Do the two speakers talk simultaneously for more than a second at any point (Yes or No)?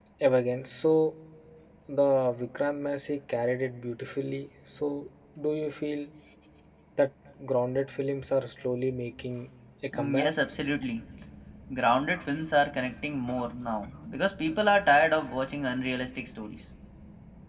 No